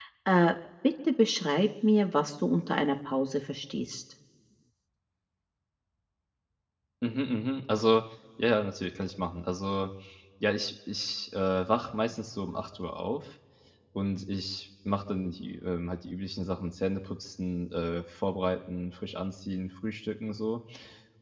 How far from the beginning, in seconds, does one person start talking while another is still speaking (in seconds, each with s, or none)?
none